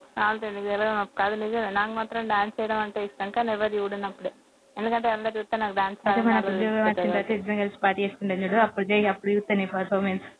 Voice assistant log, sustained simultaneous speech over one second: present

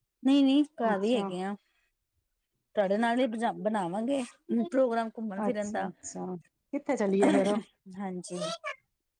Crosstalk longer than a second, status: none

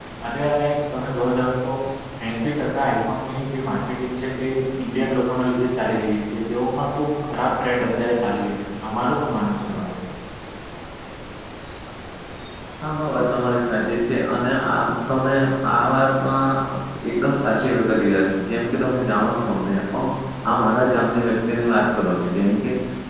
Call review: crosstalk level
none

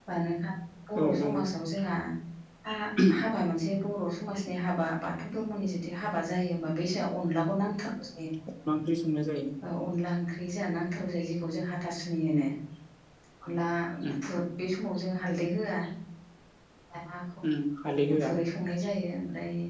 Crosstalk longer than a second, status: none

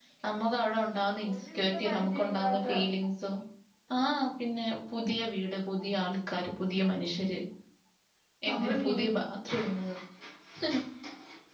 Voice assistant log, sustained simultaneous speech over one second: present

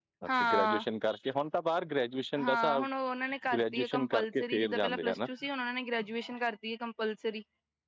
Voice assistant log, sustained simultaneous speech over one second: present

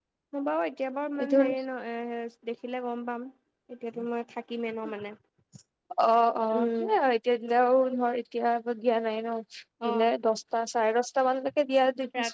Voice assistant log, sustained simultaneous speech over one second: none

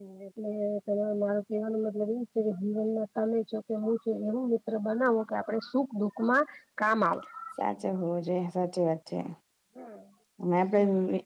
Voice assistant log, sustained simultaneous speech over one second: none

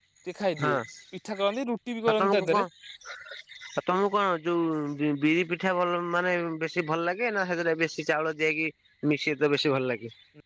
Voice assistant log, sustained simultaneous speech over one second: none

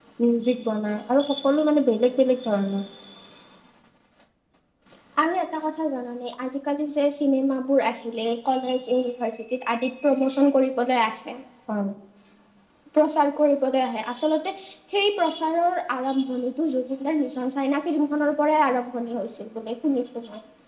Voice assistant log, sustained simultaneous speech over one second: none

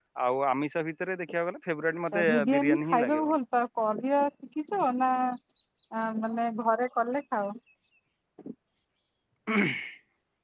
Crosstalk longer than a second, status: present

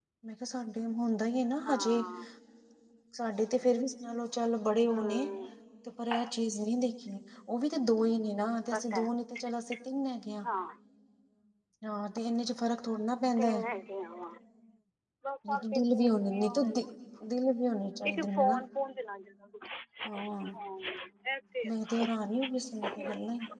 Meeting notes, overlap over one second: present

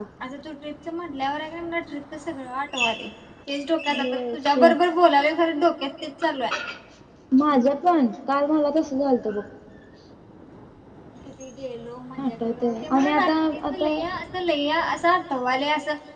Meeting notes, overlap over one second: present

